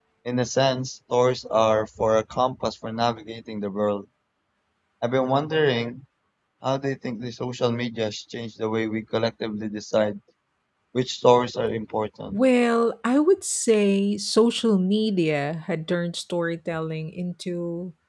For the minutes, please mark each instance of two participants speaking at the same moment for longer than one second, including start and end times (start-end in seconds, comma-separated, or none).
none